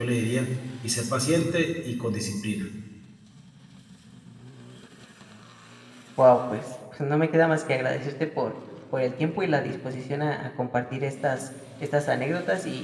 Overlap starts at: none

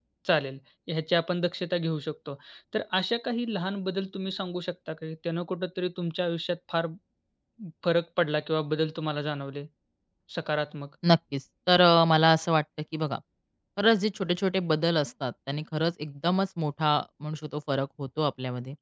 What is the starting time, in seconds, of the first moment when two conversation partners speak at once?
none

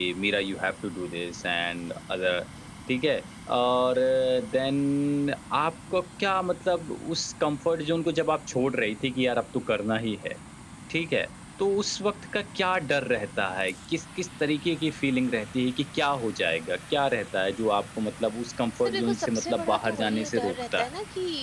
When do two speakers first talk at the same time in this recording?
18.9 s

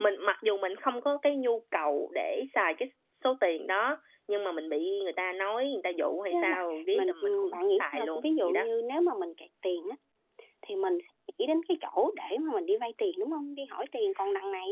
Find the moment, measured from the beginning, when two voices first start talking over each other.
6.3 s

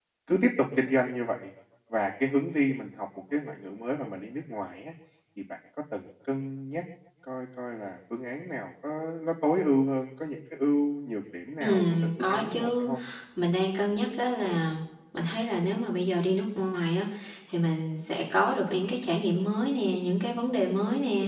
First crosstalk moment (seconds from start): 11.6 s

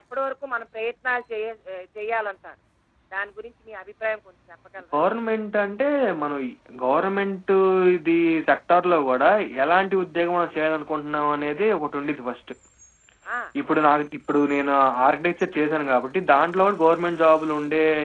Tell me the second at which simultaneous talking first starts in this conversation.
none

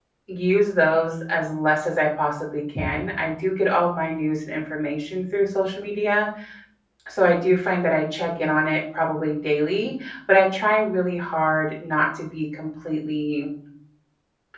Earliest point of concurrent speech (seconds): none

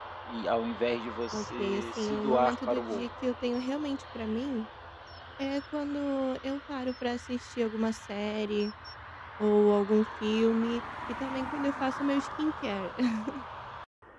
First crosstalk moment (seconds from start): 1.3 s

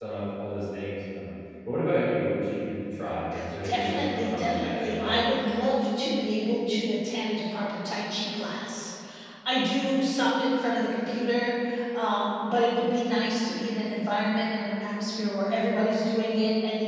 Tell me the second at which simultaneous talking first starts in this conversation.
3.6 s

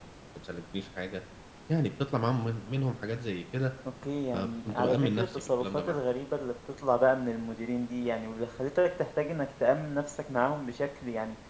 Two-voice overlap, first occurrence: 4.3 s

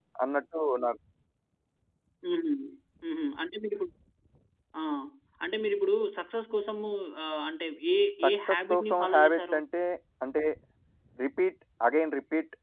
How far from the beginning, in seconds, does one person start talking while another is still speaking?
8.2 s

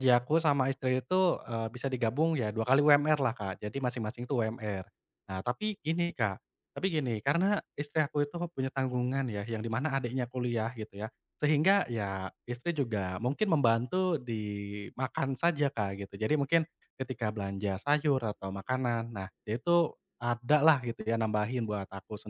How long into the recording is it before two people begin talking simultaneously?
none

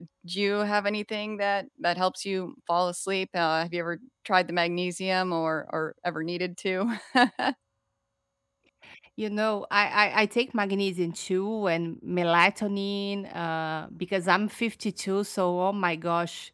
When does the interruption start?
none

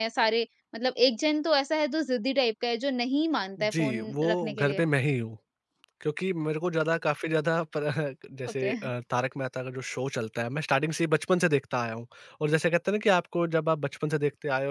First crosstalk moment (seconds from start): 3.6 s

